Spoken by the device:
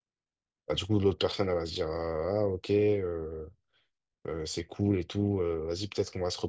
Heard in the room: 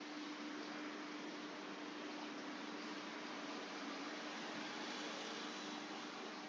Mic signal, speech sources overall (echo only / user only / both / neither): neither